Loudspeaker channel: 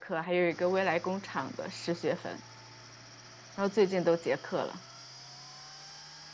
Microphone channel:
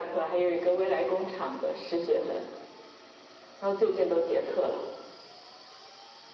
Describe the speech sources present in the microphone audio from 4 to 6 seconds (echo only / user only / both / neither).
echo only